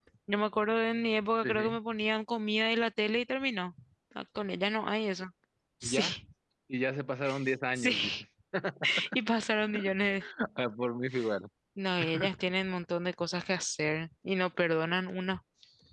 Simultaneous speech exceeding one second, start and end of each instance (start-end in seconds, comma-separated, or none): none